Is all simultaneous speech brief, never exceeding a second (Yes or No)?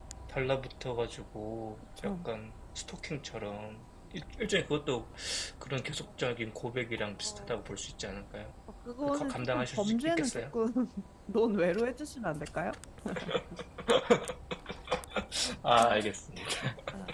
No